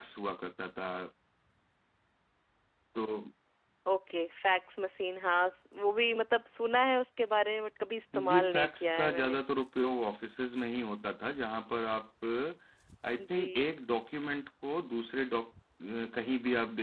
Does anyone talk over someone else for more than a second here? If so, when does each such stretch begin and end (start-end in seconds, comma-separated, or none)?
8.1-9.4